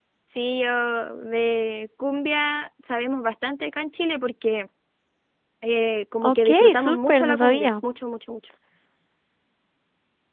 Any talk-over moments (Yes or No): Yes